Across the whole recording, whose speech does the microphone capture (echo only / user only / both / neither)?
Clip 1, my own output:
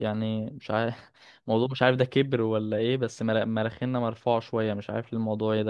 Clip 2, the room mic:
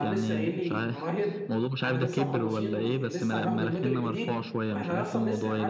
both